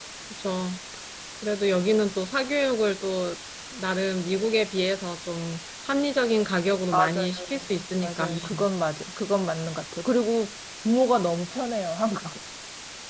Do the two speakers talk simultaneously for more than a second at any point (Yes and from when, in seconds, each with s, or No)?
Yes, from 6.9 s